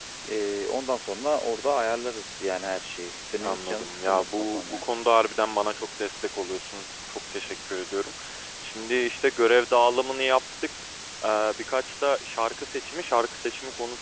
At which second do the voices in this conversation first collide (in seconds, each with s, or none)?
3.4 s